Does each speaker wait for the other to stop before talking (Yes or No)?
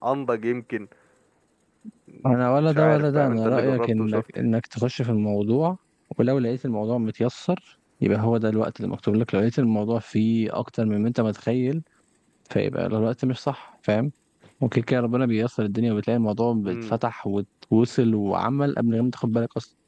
No